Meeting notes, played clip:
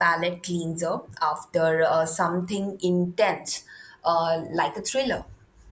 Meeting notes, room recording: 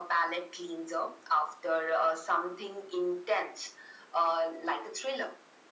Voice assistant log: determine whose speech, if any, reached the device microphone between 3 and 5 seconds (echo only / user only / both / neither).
echo only